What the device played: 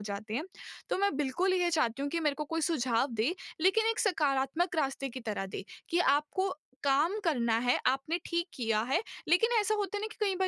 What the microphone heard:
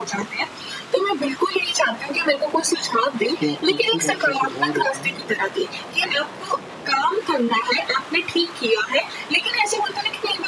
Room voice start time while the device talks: 3.4 s

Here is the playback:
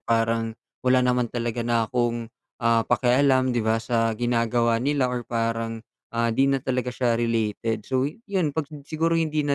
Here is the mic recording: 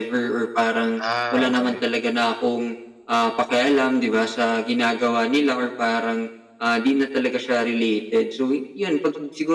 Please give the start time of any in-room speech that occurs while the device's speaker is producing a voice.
0.9 s

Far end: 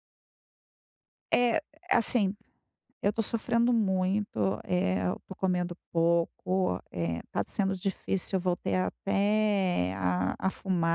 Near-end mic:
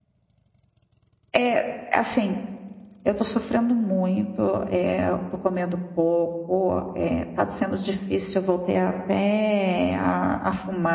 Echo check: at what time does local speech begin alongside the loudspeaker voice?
none

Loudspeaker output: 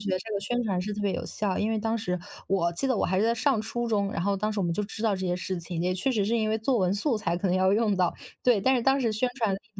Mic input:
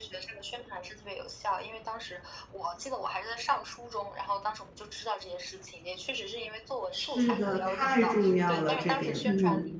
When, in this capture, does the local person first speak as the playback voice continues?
6.9 s

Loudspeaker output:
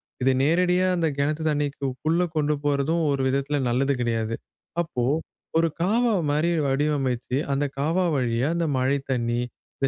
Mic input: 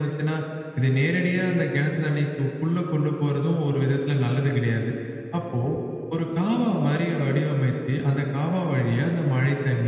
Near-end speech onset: none

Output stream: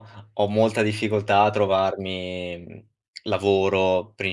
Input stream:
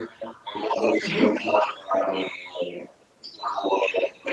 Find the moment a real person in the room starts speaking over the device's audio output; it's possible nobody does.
1.0 s

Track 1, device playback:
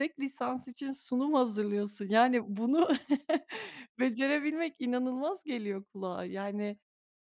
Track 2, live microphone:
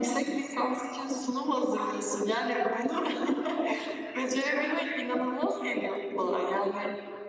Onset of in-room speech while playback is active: none

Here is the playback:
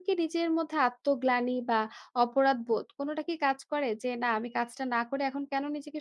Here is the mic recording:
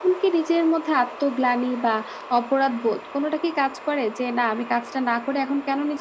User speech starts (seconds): none

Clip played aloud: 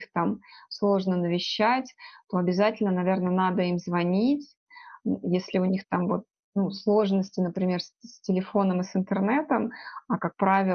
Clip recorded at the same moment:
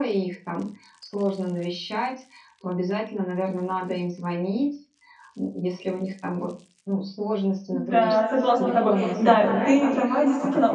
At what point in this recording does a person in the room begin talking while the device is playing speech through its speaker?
7.7 s

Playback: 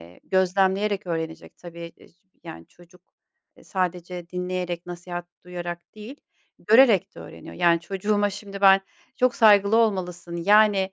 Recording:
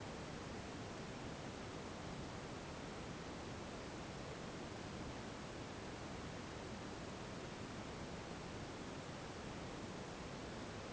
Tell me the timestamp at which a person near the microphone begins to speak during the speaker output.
none

